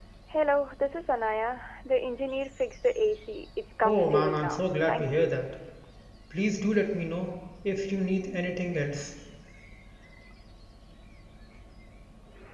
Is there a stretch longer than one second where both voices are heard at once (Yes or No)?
Yes